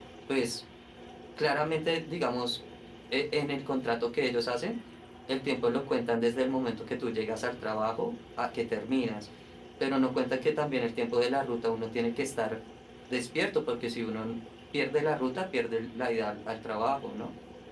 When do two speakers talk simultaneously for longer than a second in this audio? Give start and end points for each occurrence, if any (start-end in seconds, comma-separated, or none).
none